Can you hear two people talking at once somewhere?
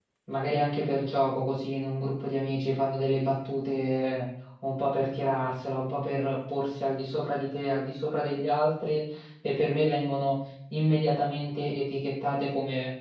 No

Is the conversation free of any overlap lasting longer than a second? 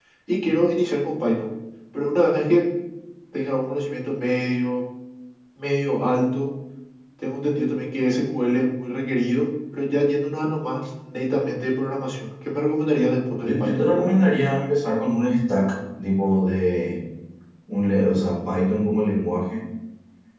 Yes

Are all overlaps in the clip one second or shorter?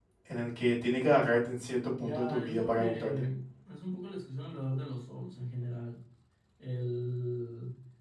No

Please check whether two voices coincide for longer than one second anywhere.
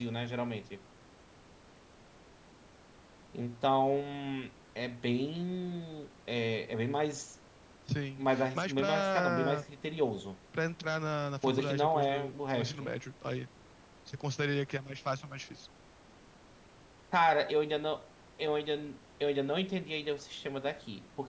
Yes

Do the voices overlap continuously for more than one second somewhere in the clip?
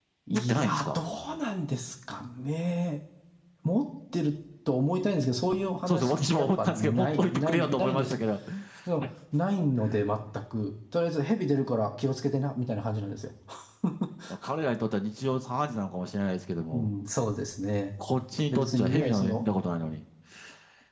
Yes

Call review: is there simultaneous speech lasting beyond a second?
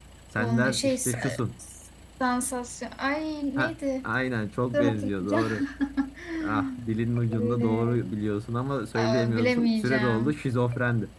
Yes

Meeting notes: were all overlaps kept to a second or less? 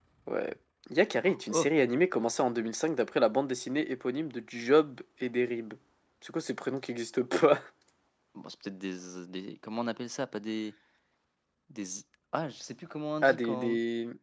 Yes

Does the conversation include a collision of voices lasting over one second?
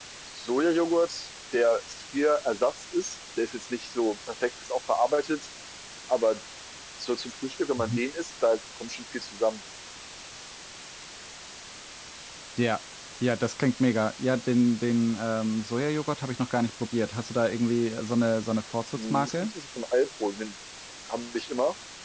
No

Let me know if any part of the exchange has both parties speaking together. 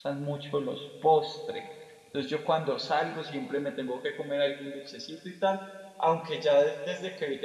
No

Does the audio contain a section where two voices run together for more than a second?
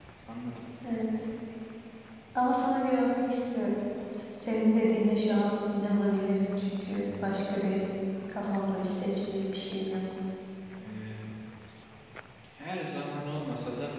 No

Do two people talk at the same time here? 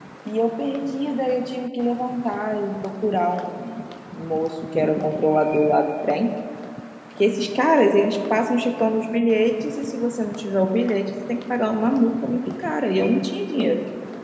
No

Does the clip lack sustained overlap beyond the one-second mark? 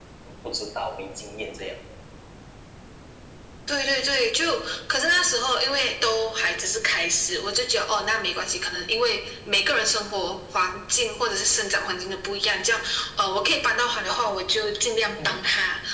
Yes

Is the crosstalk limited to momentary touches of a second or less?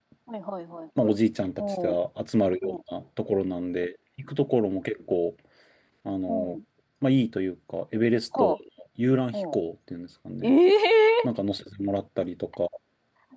Yes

